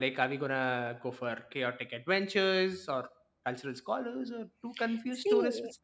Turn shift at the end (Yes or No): Yes